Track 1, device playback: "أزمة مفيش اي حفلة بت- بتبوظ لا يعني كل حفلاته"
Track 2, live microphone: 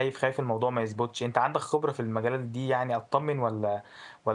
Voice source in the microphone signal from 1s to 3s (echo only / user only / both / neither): user only